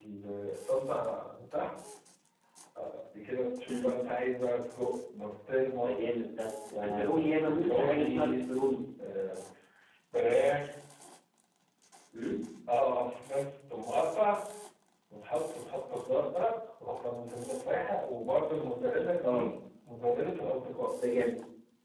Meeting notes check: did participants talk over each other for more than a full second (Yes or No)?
Yes